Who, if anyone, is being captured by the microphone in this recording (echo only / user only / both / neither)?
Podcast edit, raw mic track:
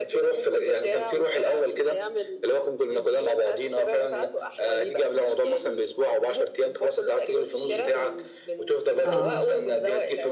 both